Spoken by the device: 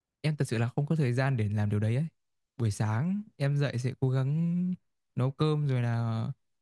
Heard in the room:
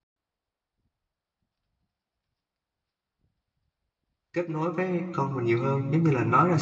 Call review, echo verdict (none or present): none